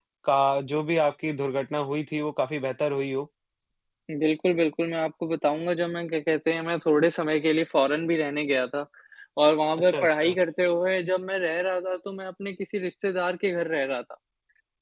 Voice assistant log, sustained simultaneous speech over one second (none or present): none